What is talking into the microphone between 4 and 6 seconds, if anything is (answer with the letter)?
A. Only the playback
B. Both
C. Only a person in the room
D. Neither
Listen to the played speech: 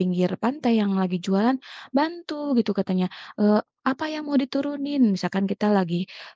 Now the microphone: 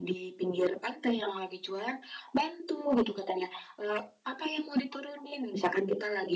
A